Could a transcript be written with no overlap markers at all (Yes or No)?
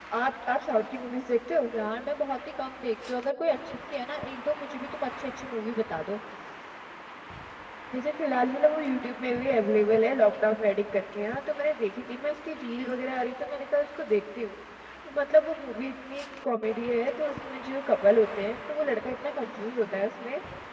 Yes